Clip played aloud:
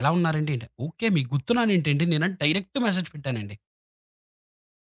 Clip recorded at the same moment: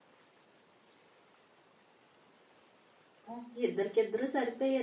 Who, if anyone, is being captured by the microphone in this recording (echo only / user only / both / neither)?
user only